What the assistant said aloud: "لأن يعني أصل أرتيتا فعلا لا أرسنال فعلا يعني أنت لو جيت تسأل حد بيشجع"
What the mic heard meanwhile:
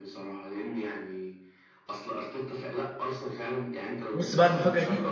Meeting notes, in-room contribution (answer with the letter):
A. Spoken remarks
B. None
A